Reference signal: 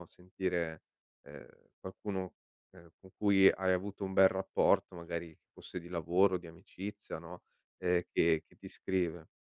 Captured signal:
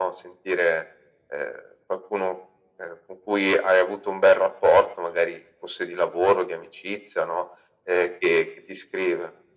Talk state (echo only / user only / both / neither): echo only